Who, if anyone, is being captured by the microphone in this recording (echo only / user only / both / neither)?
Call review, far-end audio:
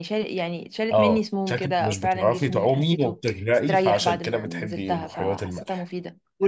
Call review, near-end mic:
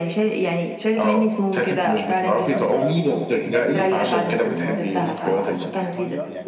both